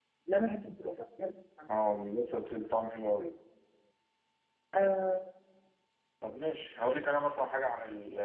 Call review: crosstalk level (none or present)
none